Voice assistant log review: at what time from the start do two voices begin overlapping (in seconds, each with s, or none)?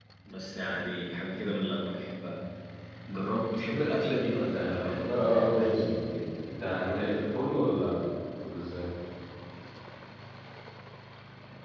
4.5 s